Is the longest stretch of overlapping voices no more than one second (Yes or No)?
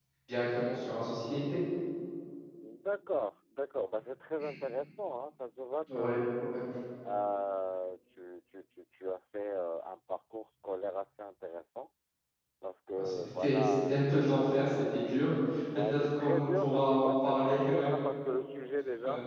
No